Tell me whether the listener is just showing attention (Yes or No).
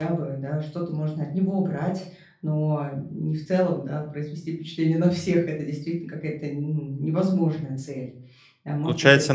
No